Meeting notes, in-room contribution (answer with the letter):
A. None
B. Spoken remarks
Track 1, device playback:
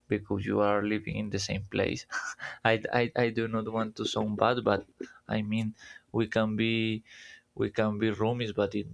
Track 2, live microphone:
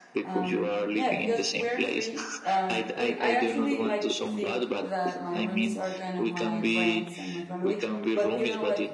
B